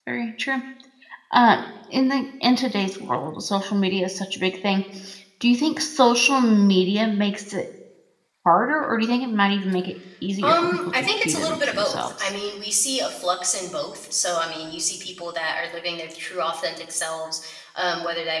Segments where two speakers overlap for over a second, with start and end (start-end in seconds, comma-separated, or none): 10.4-12.3